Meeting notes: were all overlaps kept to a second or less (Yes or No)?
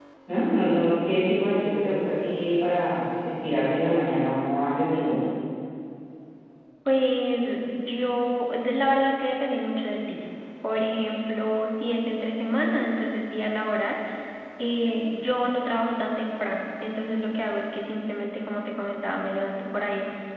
Yes